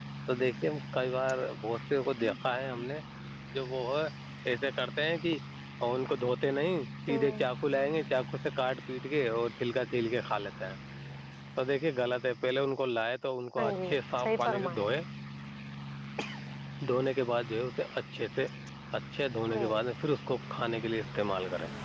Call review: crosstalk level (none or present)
present